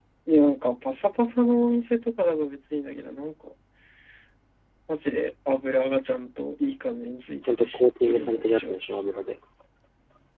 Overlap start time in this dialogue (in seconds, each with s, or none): 7.4 s